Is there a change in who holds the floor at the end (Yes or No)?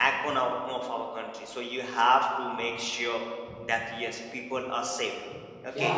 Yes